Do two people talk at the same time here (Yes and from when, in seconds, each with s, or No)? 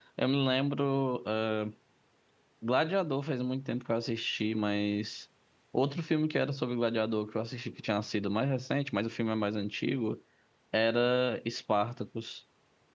No